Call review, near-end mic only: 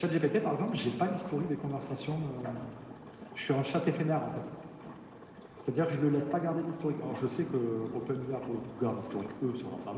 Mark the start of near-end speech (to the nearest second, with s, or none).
none